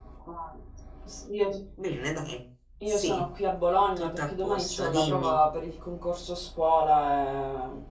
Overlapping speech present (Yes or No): Yes